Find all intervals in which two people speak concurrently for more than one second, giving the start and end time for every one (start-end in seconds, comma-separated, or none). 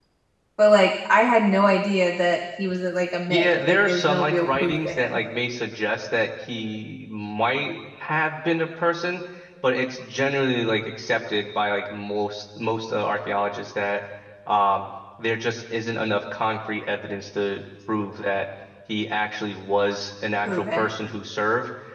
3.3-5.1